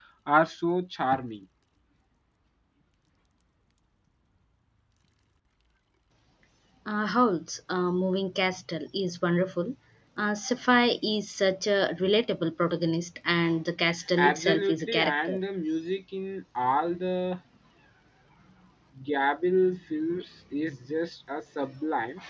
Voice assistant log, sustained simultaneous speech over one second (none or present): present